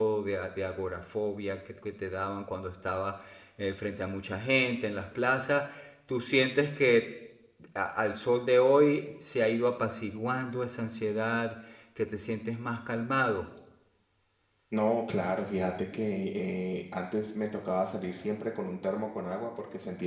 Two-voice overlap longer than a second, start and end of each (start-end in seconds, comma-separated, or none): none